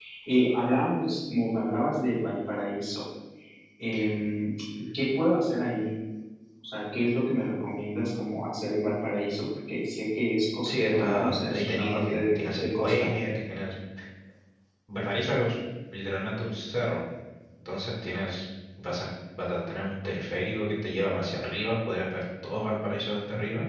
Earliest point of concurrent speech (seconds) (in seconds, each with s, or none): 10.7 s